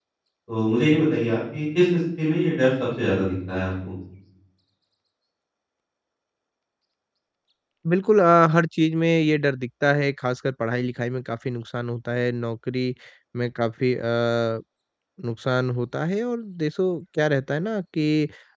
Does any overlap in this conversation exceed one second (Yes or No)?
No